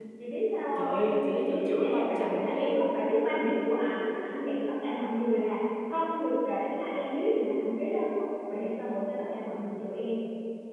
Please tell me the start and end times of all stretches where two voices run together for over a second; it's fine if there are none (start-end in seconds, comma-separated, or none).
0.8-2.9